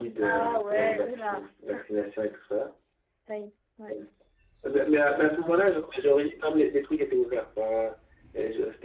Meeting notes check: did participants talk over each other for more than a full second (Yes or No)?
Yes